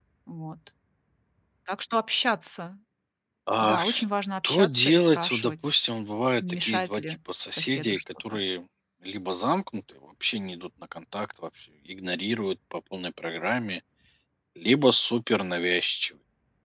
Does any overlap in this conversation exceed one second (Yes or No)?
Yes